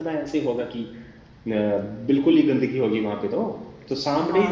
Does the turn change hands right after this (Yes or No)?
No